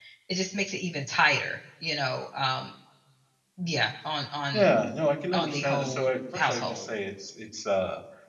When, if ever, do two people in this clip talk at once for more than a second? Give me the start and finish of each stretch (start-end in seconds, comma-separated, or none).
5.3-6.9